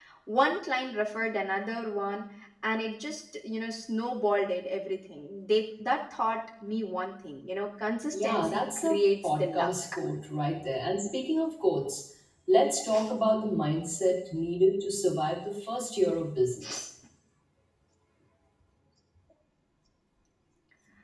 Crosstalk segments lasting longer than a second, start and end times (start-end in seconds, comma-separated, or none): 8.1-9.7